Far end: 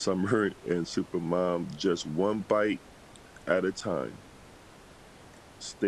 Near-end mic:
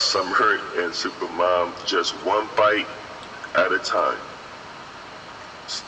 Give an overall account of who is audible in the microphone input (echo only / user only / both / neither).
echo only